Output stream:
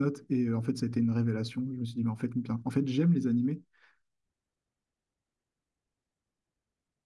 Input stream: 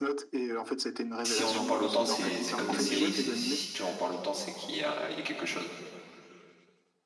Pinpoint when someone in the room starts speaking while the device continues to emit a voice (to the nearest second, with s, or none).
1 s